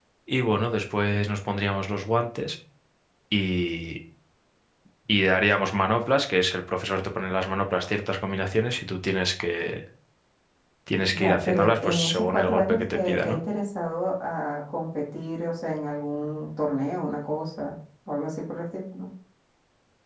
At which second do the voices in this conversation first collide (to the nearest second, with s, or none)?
11 s